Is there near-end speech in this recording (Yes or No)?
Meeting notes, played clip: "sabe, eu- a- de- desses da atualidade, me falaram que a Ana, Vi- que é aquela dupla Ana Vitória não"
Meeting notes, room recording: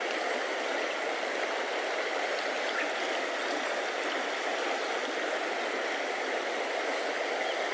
No